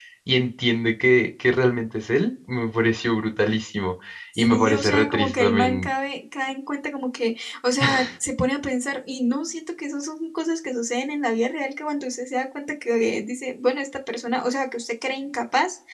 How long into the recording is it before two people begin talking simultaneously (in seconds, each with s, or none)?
4.4 s